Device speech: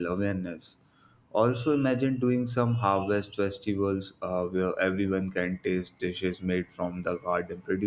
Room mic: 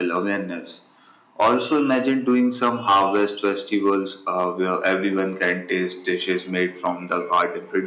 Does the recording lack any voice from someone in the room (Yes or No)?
Yes